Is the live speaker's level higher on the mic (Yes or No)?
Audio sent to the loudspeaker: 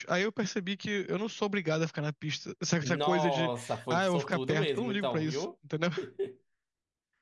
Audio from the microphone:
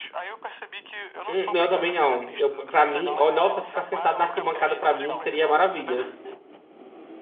Yes